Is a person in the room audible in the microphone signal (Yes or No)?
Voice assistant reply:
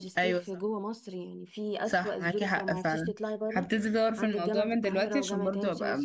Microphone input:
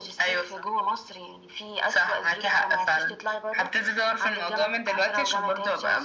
No